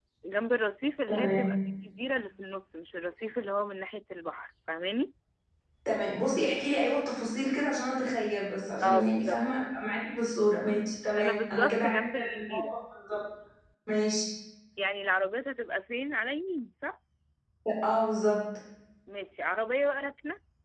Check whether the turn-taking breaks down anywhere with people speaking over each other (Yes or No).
Yes